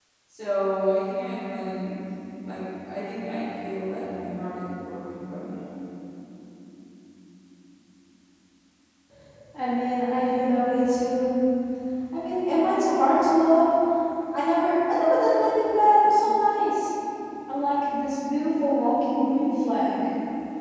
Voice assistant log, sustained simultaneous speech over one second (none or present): none